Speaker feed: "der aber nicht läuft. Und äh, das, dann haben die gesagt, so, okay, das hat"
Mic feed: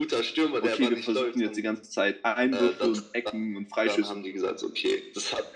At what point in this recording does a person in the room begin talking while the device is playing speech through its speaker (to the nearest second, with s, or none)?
1 s